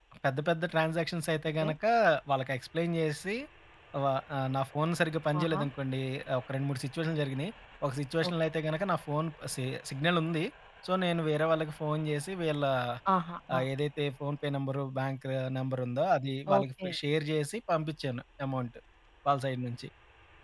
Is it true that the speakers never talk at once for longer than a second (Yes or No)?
Yes